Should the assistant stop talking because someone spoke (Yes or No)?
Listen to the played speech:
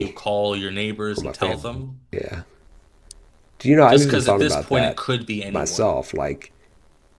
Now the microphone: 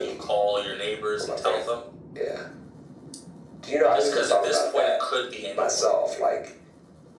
No